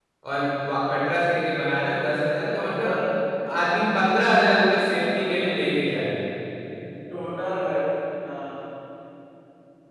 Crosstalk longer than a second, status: none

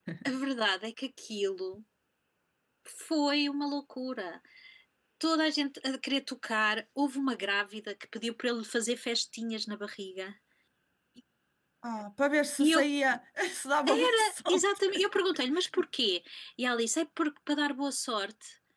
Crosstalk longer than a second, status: none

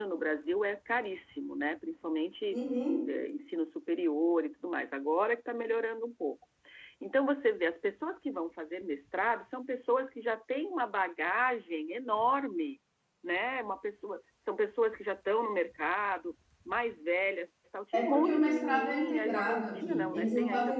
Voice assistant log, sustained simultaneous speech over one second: present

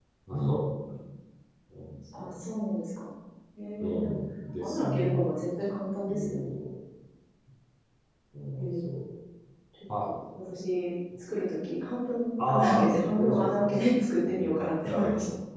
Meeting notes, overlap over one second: present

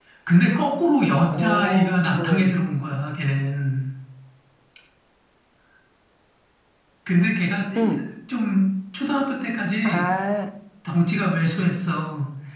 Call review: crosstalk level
present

